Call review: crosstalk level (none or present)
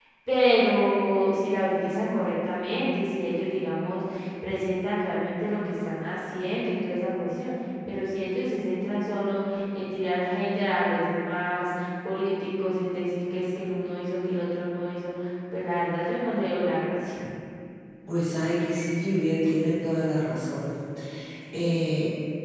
none